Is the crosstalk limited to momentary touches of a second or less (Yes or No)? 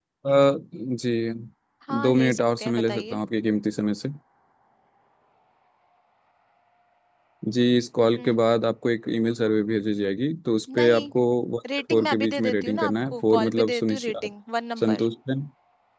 No